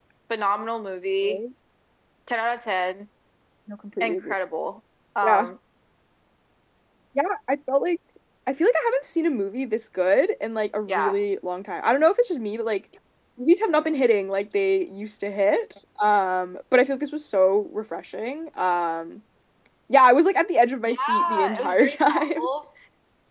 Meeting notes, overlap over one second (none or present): present